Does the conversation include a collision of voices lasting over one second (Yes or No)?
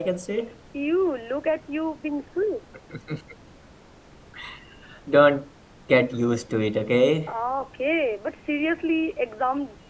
No